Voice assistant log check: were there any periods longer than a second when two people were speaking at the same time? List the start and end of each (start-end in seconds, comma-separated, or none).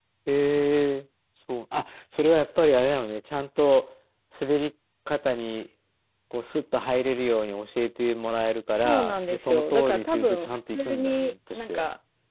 8.8-11.8